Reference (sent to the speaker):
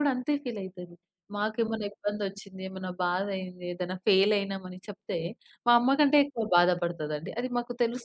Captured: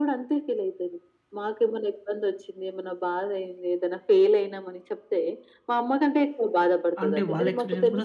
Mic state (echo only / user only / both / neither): both